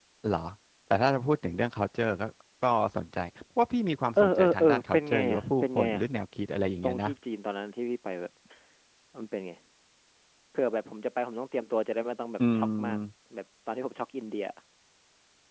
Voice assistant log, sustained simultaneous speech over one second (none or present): present